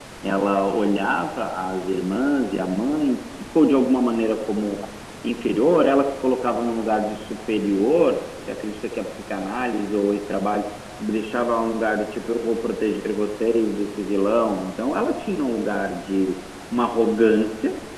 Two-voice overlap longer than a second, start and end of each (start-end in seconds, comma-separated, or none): none